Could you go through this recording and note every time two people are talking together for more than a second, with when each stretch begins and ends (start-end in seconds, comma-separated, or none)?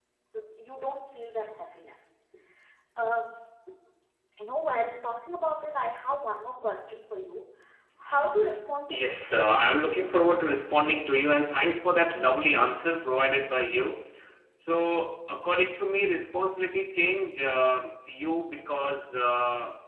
8.9-10.2